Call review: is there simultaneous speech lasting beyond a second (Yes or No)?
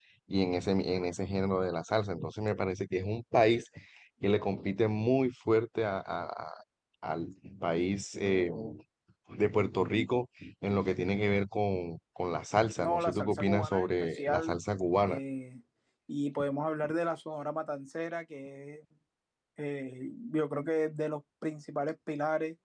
Yes